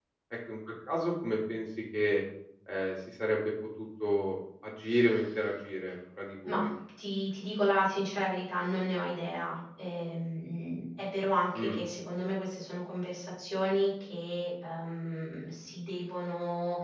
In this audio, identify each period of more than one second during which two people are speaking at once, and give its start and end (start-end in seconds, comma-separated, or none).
none